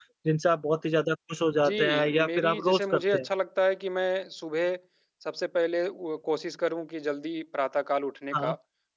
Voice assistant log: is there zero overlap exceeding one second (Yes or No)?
No